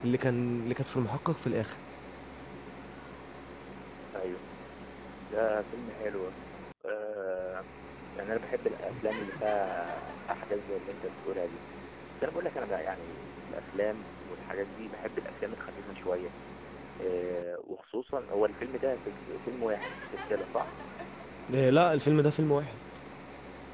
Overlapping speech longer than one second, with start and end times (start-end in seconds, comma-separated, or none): none